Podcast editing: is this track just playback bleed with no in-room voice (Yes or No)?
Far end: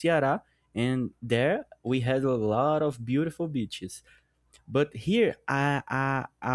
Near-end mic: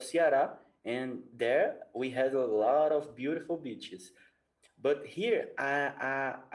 Yes